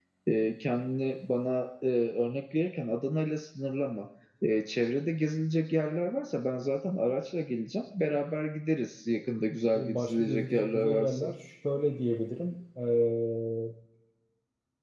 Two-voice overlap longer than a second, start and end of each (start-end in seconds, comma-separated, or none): 9.7-11.3